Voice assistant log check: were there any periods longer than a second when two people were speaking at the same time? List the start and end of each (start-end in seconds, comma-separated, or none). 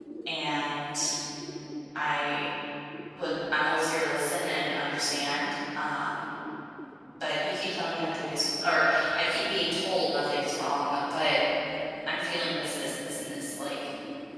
none